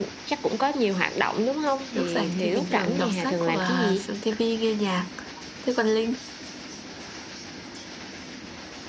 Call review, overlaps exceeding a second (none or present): present